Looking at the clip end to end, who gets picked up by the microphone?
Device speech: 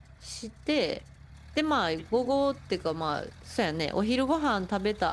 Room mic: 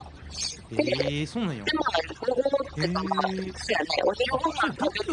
both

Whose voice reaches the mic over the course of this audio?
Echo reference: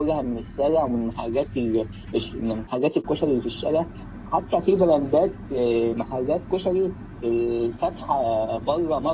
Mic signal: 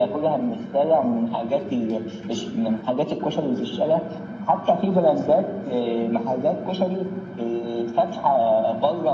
echo only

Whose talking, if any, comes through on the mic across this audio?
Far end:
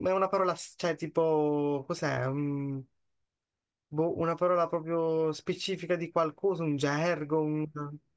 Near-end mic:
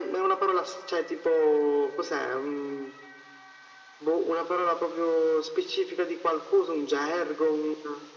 echo only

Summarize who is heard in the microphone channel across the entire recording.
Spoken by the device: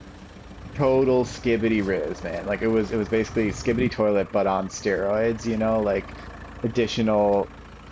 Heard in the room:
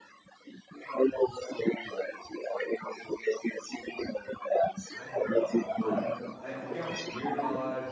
both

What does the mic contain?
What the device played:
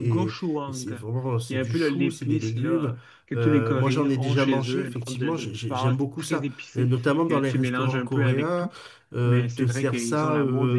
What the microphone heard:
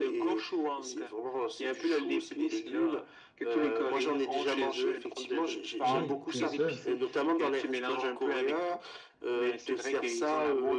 both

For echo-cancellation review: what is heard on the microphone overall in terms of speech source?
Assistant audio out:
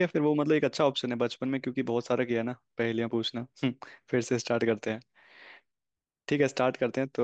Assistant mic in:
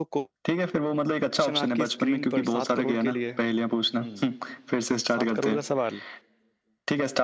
both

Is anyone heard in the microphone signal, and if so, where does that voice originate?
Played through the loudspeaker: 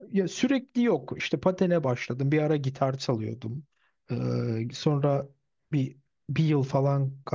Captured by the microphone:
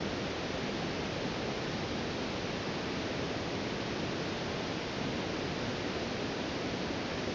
neither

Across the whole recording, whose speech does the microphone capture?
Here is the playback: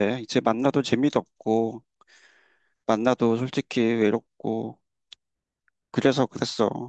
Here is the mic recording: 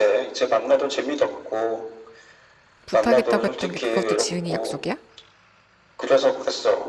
both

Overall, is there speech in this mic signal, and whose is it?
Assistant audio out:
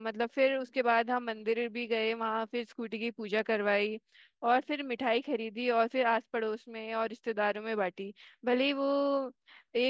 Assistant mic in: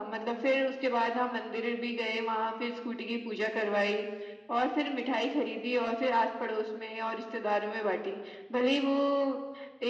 echo only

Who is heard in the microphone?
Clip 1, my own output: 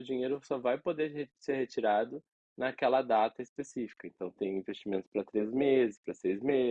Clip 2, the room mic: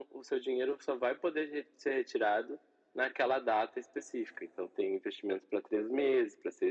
echo only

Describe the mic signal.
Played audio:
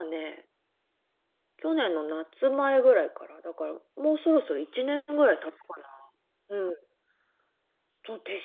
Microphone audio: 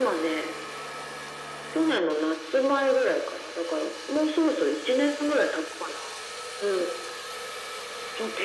echo only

